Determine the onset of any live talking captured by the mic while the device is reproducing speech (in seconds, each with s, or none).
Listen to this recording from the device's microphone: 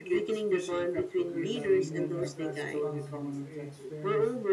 1.2 s